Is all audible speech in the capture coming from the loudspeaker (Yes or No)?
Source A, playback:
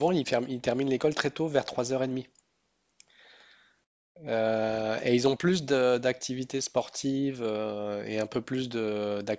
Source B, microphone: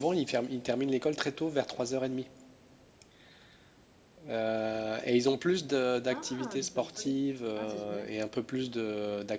No